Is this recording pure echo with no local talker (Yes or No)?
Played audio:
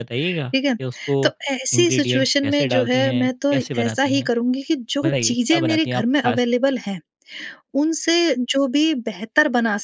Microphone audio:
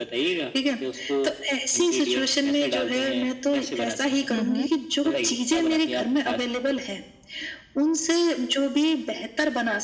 No